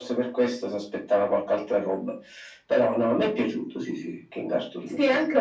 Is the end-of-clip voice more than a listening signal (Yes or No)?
Yes